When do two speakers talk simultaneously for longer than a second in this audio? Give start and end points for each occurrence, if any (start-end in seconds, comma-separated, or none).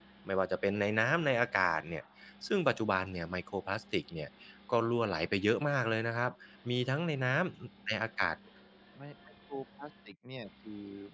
none